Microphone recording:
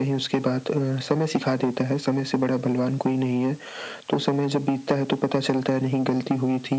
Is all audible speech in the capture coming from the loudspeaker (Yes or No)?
Yes